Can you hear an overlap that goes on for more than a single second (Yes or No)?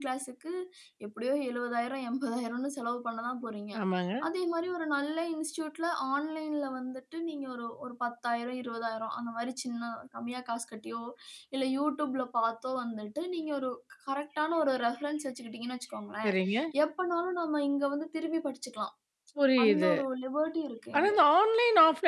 No